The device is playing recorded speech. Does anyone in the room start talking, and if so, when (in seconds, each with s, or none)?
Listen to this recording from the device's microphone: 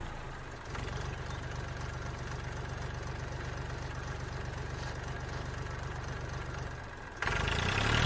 none